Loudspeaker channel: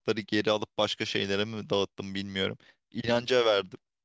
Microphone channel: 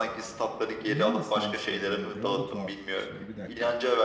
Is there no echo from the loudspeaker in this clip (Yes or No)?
No